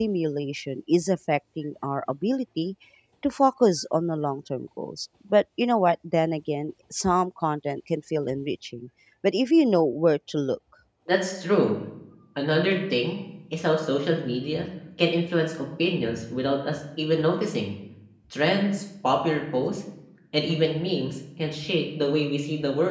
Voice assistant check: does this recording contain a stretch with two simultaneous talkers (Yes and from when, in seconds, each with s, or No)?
No